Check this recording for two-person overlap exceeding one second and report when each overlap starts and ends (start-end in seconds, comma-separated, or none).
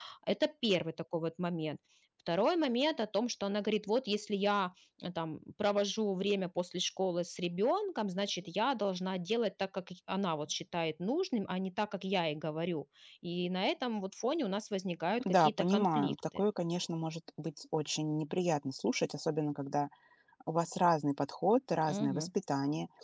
15.2-16.4